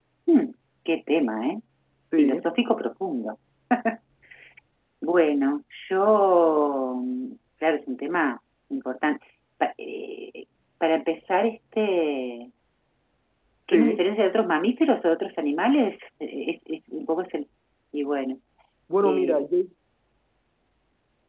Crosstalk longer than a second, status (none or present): none